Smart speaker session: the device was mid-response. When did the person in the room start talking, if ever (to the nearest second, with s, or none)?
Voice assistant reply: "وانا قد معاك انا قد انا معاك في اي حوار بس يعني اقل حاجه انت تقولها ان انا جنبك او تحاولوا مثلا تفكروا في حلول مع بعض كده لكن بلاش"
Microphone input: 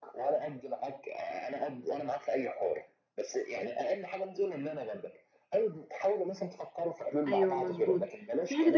7 s